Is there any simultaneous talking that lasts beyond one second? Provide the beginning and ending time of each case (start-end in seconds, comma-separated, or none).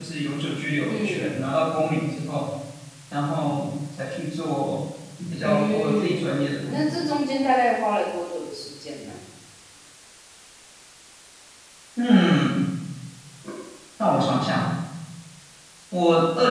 5.4-7.0